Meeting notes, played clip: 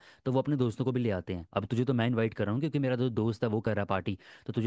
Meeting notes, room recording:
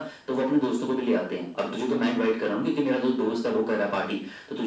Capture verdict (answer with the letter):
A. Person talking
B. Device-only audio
B